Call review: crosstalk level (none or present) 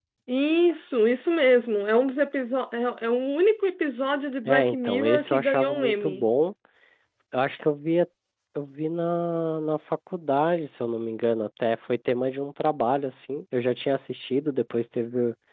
present